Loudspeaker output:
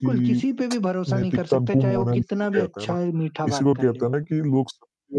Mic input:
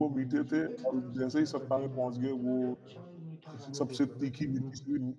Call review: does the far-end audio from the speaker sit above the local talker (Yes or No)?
No